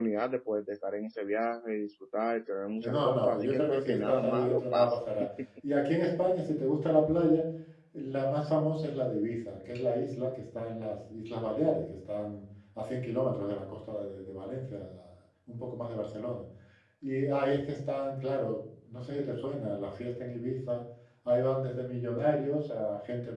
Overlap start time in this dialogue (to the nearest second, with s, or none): 3 s